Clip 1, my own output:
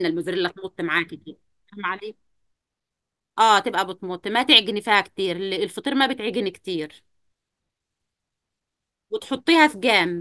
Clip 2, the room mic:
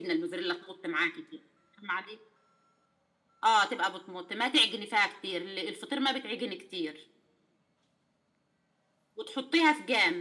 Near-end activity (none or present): none